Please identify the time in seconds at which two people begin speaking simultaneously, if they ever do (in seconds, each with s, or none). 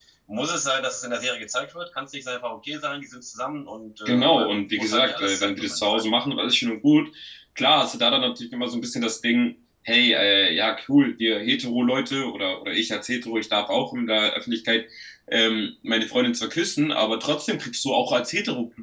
4.0 s